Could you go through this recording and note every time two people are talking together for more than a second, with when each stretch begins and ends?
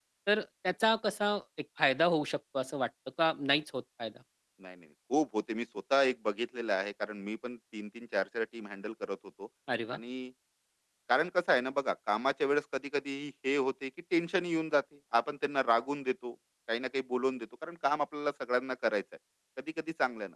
none

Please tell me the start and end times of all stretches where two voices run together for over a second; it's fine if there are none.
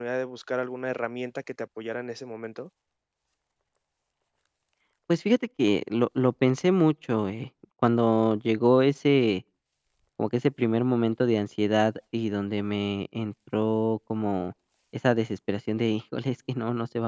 none

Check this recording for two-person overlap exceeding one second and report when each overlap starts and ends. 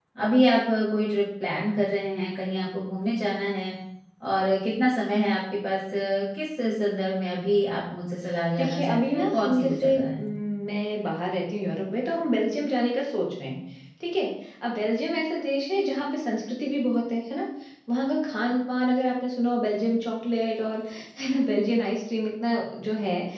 8.6-10.0

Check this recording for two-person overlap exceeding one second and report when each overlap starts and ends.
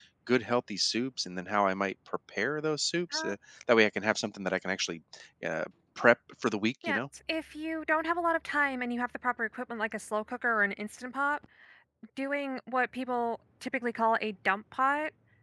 none

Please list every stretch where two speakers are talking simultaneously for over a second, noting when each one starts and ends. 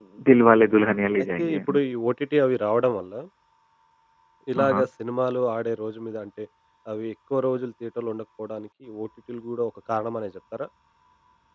none

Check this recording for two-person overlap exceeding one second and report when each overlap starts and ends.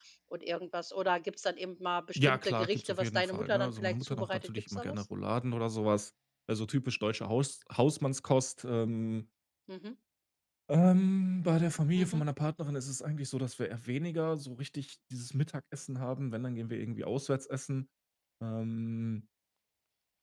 2.2-5.0

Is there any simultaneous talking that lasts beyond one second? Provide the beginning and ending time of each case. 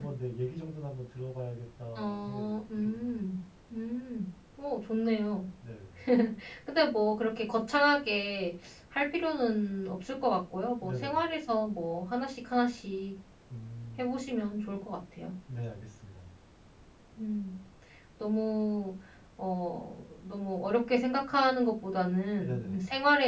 2.0-3.2

